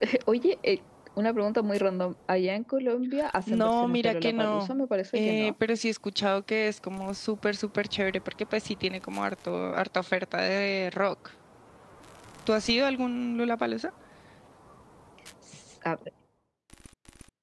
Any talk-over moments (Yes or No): Yes